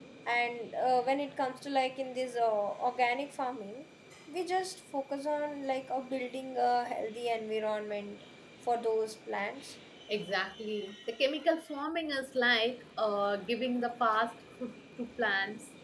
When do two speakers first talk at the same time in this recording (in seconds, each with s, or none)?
none